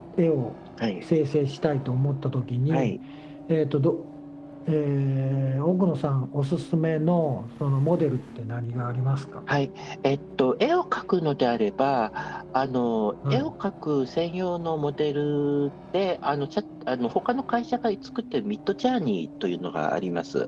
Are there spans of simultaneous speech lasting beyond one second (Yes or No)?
No